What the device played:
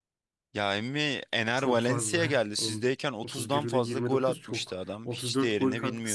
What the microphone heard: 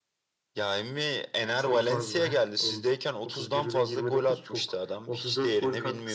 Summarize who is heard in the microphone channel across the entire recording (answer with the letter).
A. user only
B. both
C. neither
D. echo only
D